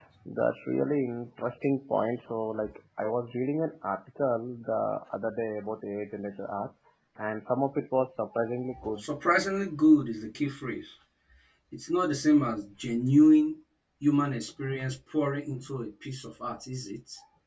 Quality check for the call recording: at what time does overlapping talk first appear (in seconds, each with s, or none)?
none